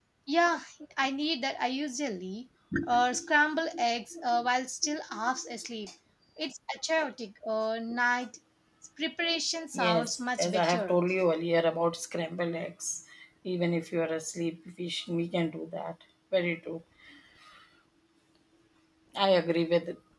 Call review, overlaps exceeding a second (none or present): present